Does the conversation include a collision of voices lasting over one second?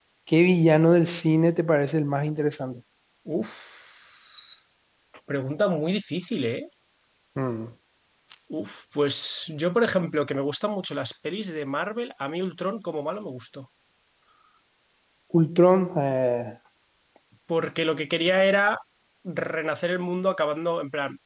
No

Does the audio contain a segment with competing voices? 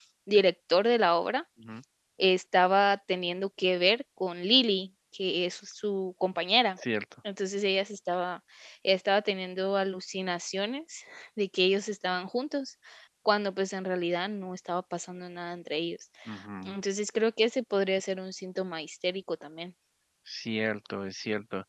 No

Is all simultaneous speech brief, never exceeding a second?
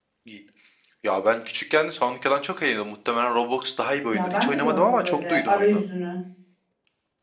No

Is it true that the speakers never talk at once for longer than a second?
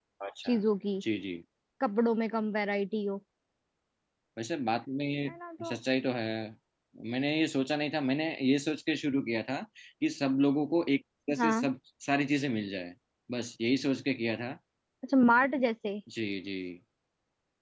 Yes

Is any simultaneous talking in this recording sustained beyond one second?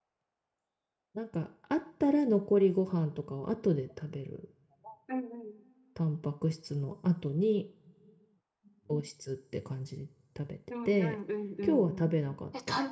No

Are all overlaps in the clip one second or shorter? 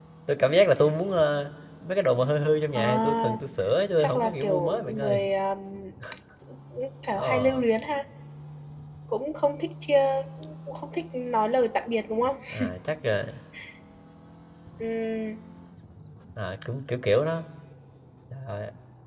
No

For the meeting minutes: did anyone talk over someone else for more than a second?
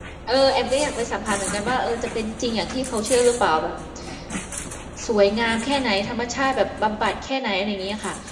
No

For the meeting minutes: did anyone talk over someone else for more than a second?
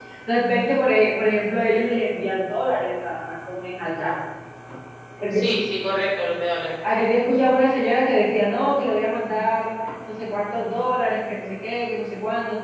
No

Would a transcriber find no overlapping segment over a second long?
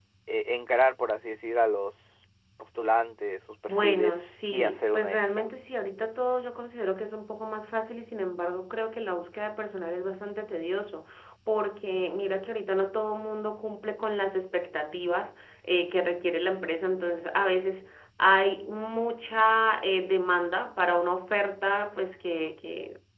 No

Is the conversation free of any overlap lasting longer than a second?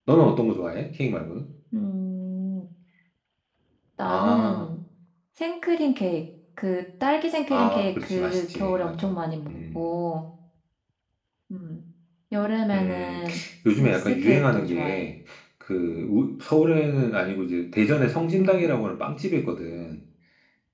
No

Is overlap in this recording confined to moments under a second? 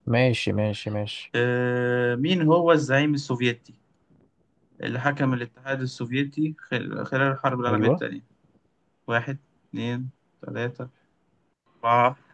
Yes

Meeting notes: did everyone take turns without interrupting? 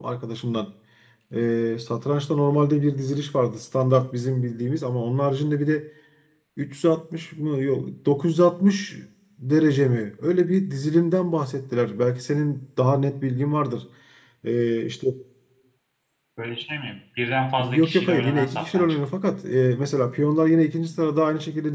No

